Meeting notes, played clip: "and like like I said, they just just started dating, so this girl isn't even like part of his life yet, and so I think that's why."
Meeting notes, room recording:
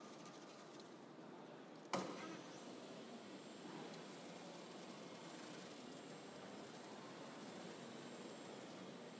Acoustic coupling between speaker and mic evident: No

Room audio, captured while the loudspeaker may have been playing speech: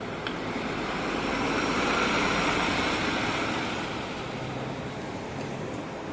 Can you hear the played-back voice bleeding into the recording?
No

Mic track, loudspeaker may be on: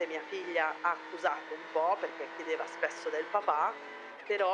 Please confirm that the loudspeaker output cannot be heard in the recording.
No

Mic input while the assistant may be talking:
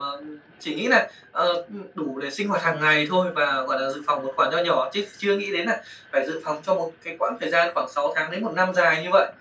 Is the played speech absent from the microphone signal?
No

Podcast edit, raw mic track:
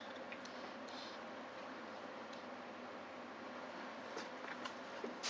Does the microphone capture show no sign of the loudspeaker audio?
Yes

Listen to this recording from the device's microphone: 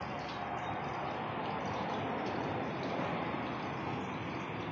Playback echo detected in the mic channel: No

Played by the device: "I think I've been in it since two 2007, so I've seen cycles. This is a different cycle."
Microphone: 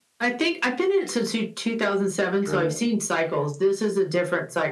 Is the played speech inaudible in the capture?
No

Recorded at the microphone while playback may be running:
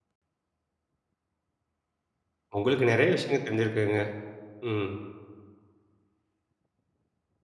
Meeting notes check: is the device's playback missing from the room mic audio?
Yes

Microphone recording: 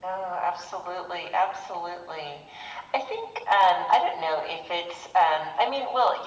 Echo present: Yes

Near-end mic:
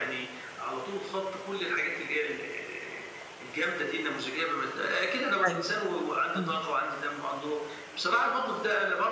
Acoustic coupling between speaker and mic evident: Yes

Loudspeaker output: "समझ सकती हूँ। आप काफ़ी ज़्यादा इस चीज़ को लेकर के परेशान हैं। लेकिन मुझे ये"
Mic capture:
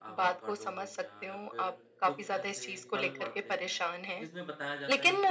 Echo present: Yes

